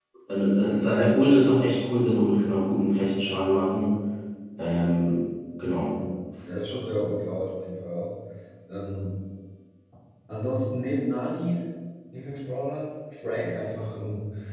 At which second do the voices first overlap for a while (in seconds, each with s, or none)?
none